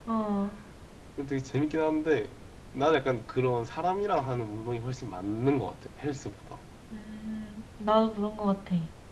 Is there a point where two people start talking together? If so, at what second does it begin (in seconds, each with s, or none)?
none